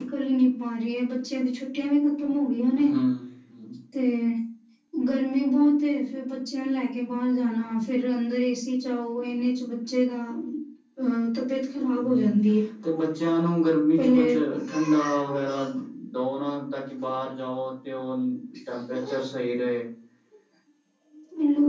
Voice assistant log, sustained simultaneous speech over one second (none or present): none